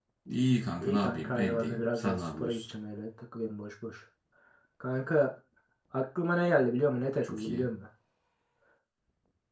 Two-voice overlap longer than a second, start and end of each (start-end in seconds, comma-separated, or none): 0.8-2.6